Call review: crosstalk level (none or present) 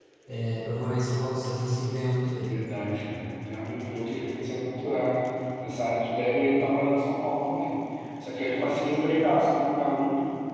none